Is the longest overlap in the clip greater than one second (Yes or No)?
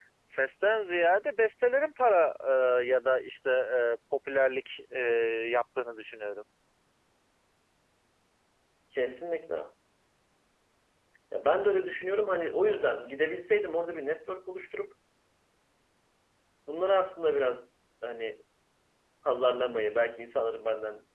No